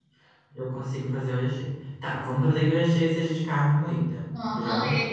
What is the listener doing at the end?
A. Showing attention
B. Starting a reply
B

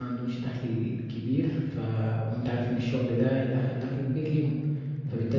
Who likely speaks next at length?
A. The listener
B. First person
B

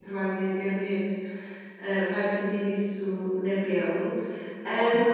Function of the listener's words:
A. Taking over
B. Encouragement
B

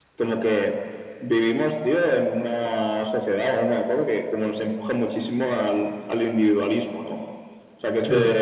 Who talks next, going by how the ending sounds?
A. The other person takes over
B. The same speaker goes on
A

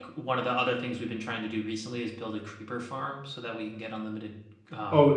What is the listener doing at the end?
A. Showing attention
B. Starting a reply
B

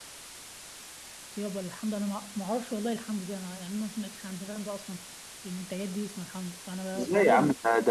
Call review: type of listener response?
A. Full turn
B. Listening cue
A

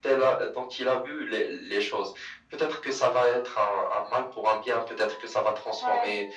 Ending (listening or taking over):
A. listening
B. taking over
A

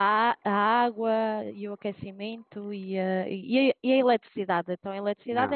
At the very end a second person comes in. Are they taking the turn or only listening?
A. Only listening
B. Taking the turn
B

